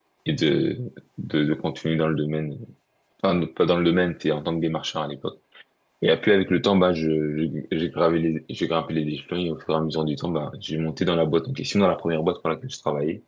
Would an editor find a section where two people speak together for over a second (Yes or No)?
No